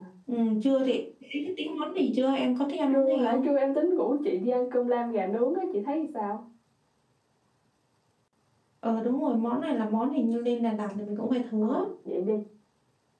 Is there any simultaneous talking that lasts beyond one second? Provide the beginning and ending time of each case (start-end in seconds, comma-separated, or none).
none